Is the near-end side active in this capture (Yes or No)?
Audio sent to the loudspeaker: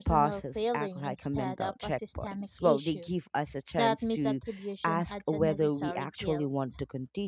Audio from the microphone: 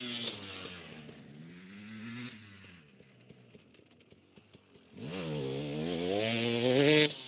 No